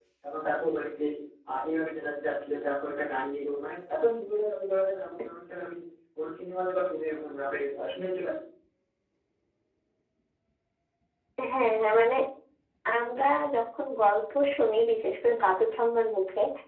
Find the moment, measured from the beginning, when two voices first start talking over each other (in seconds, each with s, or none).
none